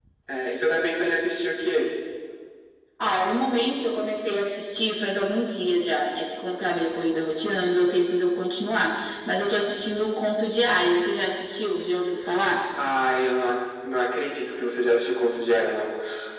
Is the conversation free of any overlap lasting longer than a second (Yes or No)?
Yes